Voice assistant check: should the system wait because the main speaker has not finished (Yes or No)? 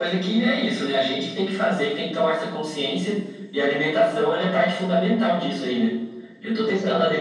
Yes